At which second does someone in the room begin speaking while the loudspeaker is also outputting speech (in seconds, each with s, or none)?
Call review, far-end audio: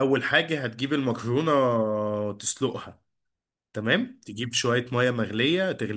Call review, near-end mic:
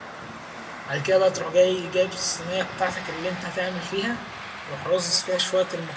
0.9 s